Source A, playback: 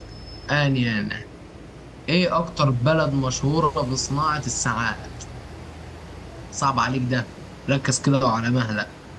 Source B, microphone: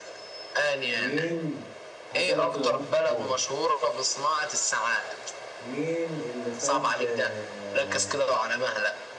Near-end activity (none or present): present